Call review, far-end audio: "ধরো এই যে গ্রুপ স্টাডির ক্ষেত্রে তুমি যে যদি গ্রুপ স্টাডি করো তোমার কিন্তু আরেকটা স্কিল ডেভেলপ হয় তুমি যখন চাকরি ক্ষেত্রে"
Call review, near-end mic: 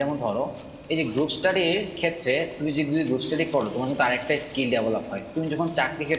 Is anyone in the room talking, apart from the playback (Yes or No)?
No